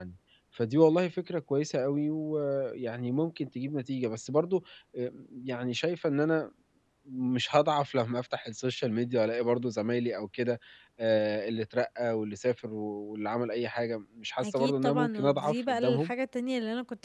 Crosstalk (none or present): present